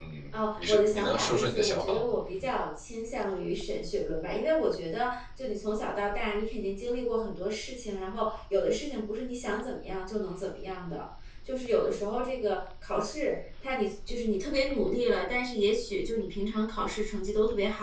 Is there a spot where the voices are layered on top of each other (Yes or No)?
Yes